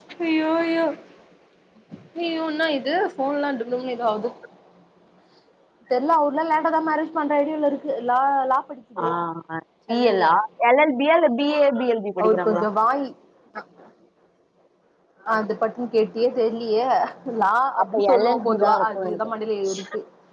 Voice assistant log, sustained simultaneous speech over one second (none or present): present